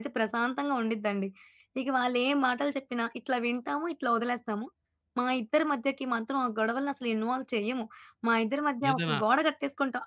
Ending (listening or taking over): listening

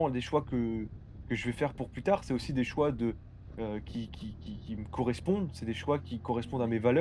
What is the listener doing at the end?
listening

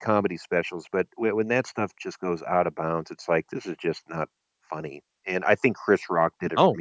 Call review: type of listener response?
listening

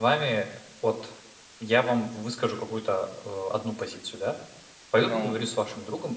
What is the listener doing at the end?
listening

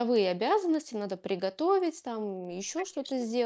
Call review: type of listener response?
listening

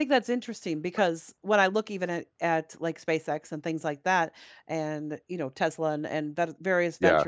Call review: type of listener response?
listening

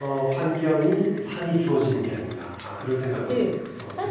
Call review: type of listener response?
taking over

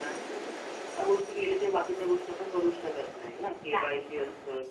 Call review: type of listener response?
listening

